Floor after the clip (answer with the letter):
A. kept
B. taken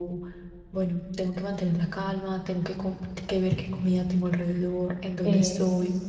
A